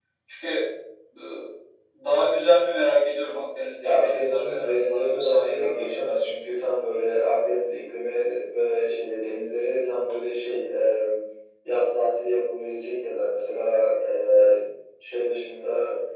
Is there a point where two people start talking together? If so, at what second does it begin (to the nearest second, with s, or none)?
4 s